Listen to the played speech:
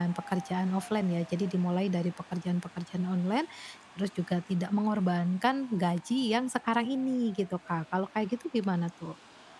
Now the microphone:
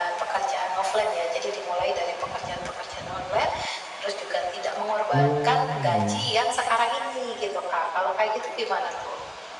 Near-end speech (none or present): present